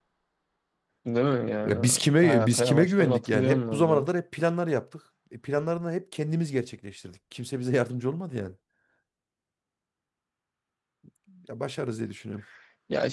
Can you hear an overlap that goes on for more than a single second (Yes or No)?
Yes